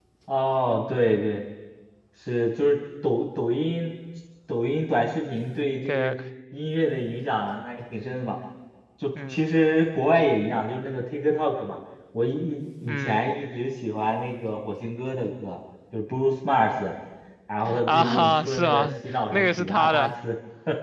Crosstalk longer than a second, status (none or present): present